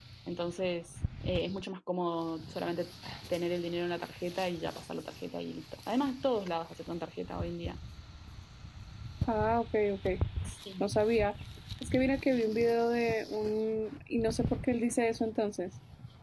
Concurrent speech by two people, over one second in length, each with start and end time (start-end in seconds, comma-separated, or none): none